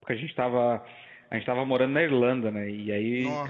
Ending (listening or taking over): listening